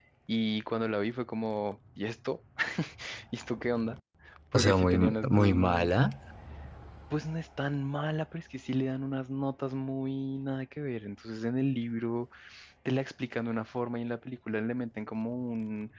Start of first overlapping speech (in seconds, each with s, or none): 4.5 s